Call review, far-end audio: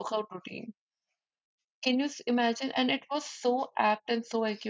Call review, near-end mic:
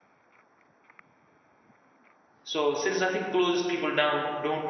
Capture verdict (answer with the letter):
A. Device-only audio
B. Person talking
B